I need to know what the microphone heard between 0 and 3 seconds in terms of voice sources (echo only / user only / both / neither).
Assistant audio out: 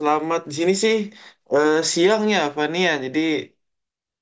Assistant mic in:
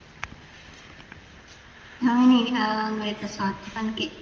user only